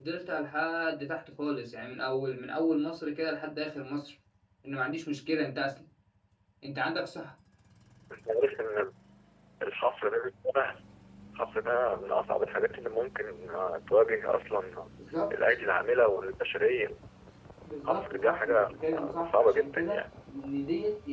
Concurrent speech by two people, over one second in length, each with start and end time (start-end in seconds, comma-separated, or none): 17.9-20.0